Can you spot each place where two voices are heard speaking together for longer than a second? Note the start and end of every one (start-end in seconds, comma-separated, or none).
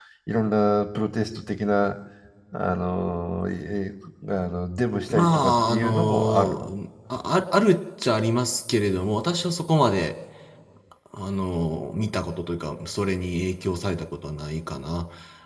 5.1-6.6